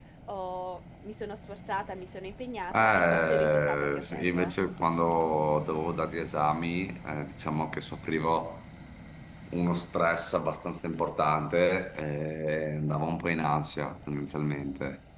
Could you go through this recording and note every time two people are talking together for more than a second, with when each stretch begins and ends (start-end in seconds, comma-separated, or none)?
2.7-4.5